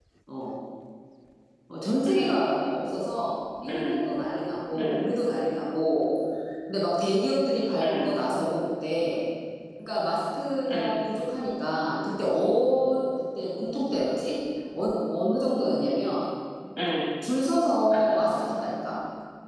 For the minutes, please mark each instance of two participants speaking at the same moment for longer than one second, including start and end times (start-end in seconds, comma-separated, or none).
none